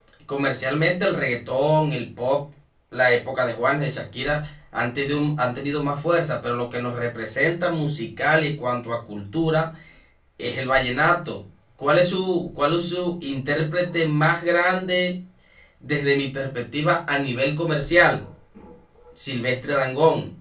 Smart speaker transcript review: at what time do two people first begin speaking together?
none

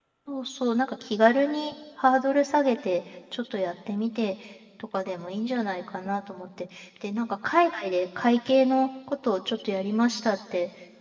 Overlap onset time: none

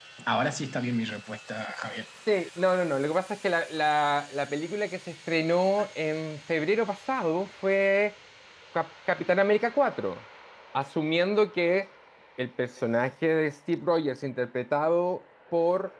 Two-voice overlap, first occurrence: none

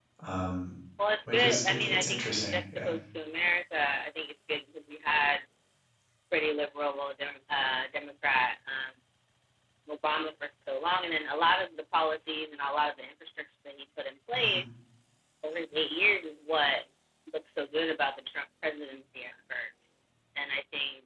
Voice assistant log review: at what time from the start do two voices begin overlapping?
1.3 s

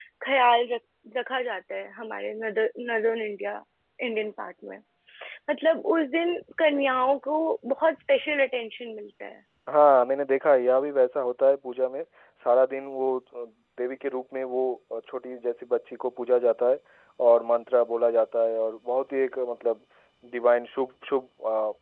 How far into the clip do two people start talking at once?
none

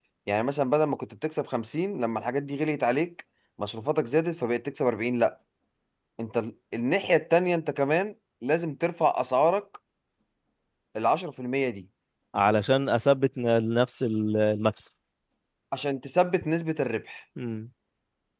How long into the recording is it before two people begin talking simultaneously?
none

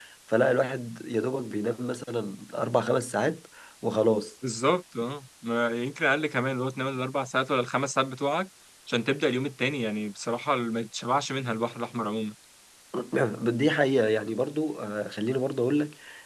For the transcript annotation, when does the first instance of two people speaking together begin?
none

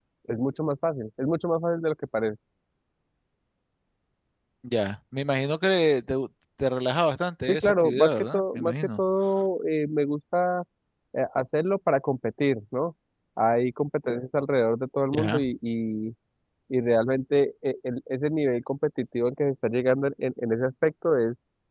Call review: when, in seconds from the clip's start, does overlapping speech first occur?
7.5 s

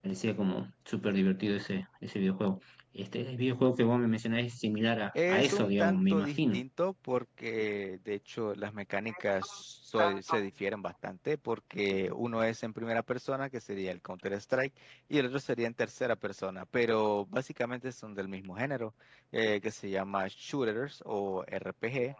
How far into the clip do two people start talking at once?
5.3 s

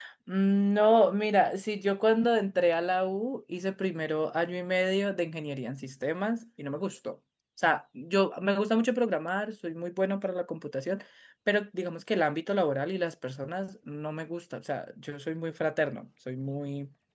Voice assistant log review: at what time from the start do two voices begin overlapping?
none

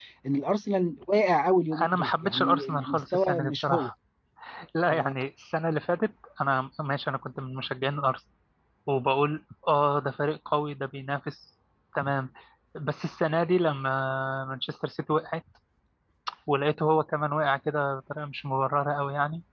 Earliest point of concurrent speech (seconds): 1.7 s

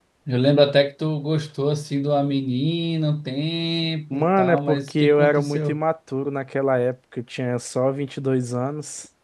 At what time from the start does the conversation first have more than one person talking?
4.1 s

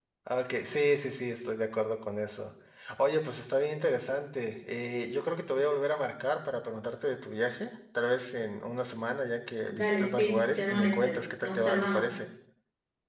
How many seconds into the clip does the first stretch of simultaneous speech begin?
9.7 s

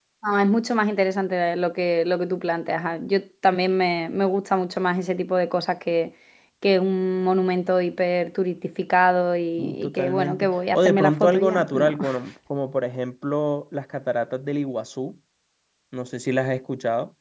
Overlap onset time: 9.6 s

